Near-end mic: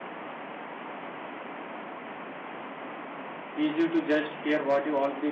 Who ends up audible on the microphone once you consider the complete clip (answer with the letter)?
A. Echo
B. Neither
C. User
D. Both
C